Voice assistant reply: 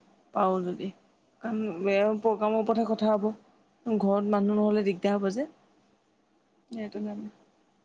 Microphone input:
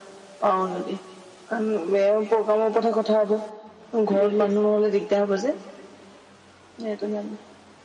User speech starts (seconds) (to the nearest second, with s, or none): 4 s